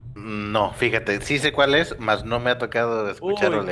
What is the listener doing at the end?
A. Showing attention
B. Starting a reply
B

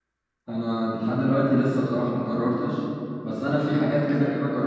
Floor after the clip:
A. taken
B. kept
B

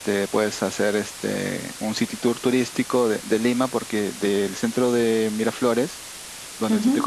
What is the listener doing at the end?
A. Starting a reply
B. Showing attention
B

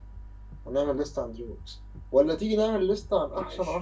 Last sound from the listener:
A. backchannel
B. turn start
A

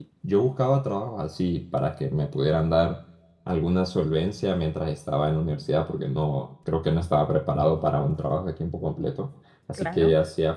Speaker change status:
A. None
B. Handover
A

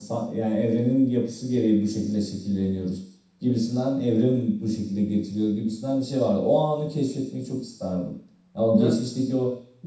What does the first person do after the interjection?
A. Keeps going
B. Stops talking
A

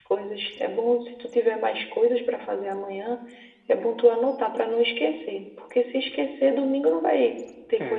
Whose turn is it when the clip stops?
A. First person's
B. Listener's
B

